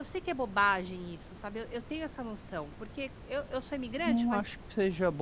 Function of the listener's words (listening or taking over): taking over